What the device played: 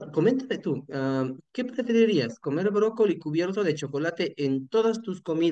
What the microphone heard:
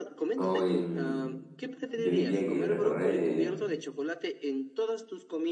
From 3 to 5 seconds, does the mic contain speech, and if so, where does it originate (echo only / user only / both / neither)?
both